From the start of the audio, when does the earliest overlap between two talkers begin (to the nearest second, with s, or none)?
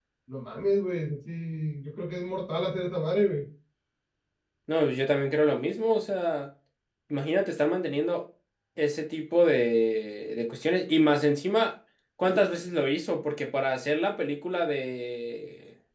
none